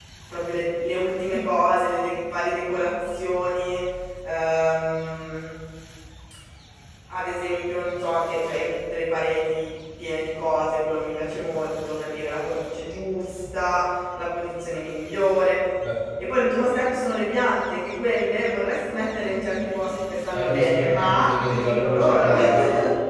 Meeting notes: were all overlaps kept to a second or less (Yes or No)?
No